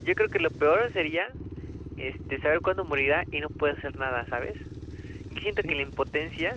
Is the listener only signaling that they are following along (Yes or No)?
Yes